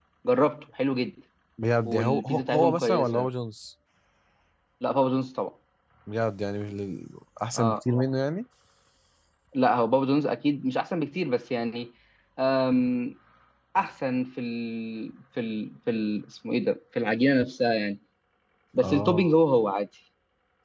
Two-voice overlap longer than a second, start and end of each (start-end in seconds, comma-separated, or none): 1.8-3.3